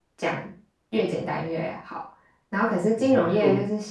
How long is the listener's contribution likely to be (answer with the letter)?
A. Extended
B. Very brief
B